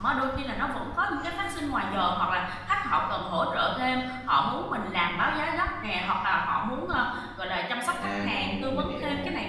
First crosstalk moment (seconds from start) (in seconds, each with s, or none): 7.8 s